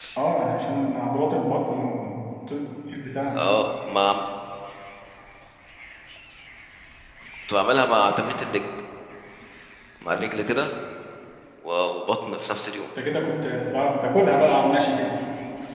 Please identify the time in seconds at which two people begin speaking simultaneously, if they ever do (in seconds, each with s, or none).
none